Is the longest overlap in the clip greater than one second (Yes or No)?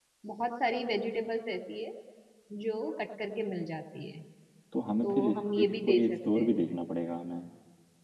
Yes